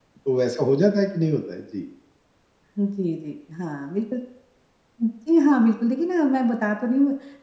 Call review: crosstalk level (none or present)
none